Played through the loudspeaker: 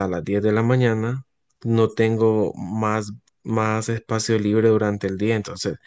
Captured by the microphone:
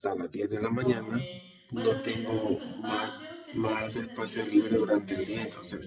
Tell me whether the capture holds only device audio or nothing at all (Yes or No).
No